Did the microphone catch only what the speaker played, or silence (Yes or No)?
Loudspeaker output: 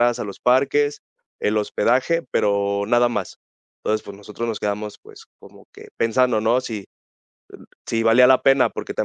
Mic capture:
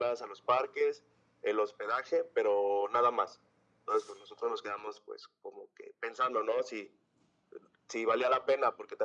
Yes